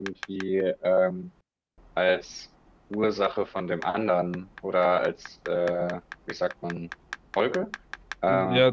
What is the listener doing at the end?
taking over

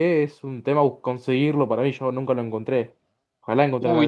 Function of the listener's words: taking over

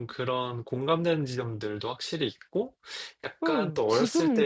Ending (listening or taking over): taking over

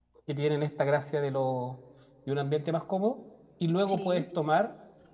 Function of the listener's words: listening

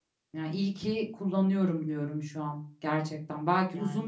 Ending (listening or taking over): listening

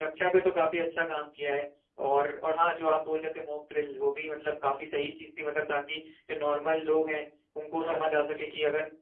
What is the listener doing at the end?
listening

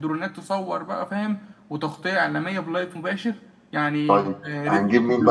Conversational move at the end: taking over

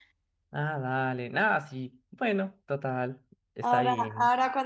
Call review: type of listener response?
taking over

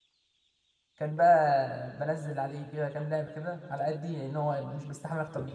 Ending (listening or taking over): taking over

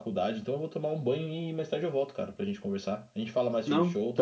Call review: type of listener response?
listening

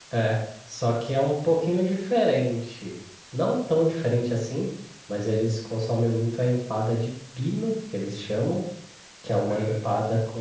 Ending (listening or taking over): listening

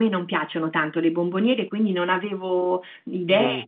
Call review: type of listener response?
listening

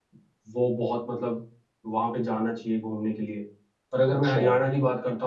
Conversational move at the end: listening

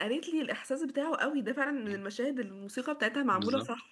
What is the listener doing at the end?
taking over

